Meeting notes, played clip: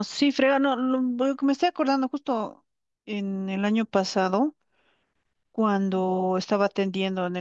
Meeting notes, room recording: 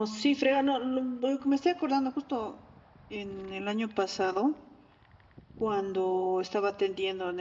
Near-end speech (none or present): none